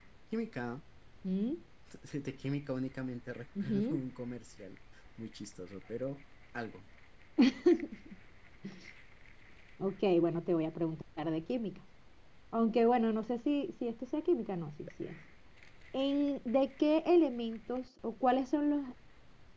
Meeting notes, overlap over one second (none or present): none